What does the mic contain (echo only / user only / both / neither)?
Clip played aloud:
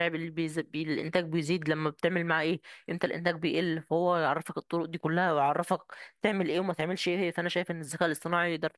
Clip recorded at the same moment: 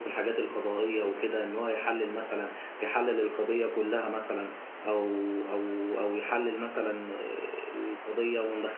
user only